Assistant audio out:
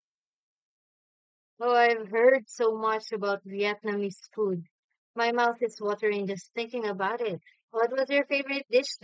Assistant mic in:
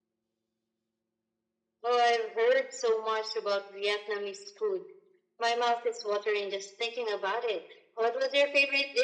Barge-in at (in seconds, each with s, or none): none